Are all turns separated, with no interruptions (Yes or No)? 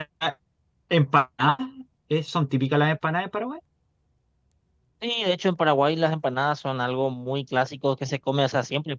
Yes